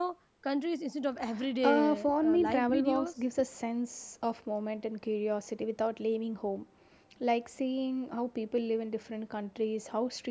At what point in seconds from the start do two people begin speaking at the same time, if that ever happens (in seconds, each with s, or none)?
1.6 s